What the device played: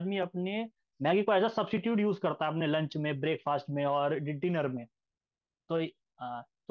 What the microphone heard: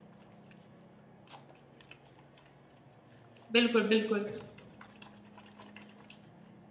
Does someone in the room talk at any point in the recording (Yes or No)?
Yes